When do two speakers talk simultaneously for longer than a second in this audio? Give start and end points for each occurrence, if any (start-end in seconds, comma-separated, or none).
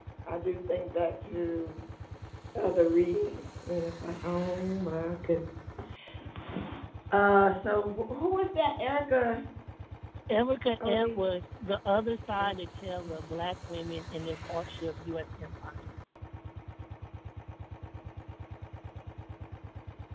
none